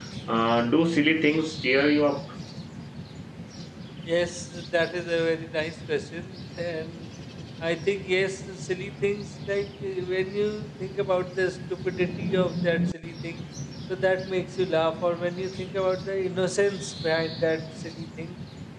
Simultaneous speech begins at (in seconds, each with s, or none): none